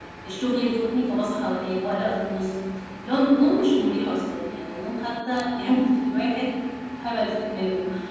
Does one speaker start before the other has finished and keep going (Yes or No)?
No